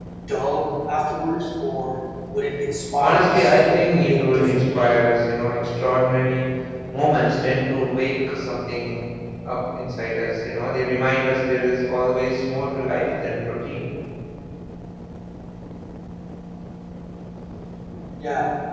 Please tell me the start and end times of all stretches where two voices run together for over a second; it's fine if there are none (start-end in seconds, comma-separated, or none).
3.0-4.6